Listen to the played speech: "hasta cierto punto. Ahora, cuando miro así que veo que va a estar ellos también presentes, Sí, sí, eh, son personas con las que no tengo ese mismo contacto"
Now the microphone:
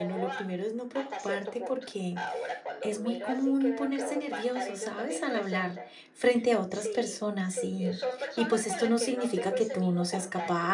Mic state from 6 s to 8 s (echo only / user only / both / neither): both